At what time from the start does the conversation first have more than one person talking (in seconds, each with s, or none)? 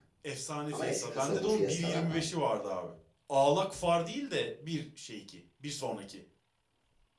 0.7 s